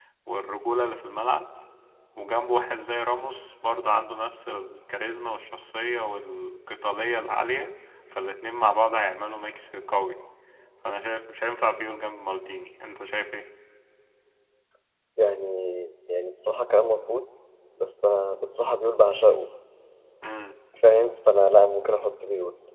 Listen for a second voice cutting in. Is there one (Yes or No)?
No